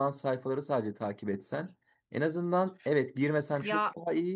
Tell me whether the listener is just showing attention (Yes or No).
Yes